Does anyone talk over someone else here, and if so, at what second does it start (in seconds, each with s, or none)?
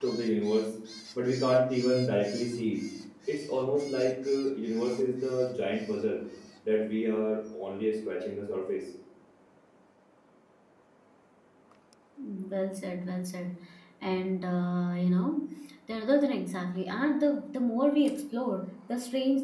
none